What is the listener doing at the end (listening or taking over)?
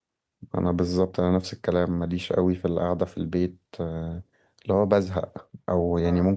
listening